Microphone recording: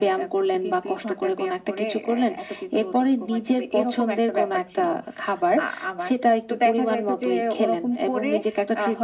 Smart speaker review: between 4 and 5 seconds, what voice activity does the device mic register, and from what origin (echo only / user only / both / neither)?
echo only